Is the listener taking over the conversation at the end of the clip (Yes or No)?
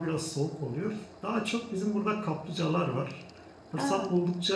No